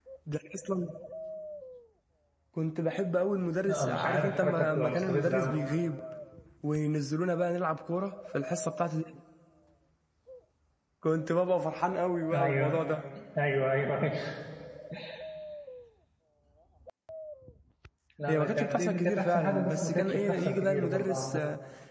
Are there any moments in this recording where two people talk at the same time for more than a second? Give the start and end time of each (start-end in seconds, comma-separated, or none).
3.7-5.5, 18.3-21.4